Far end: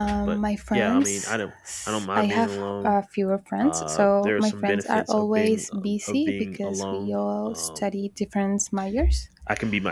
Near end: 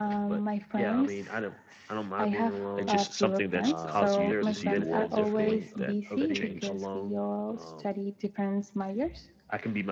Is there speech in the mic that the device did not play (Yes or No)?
Yes